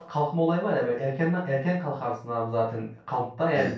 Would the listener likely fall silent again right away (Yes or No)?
Yes